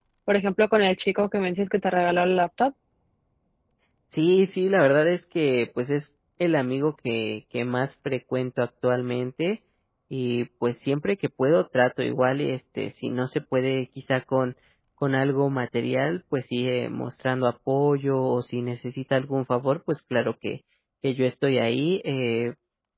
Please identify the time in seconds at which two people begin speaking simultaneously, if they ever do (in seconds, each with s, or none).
none